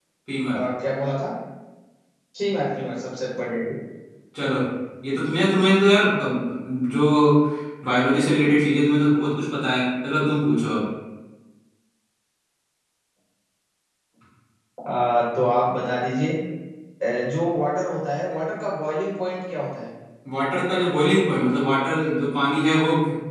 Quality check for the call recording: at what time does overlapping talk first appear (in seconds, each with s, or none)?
none